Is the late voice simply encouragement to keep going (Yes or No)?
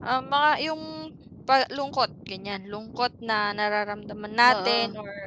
Yes